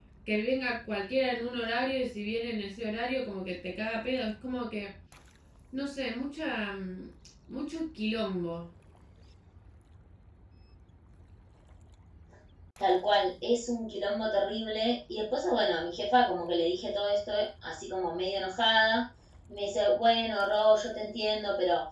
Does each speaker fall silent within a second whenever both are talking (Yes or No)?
Yes